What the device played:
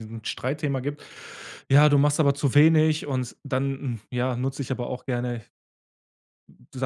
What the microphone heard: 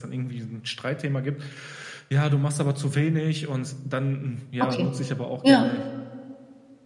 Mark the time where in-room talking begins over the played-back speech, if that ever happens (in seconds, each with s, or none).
4.6 s